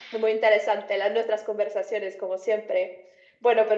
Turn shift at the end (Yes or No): No